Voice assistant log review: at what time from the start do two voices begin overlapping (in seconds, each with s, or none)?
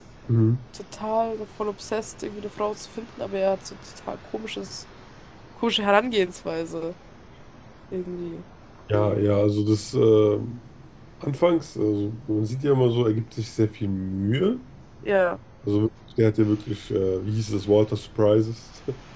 none